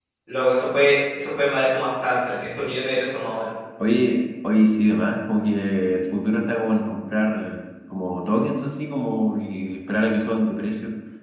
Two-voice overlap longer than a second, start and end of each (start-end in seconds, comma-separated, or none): none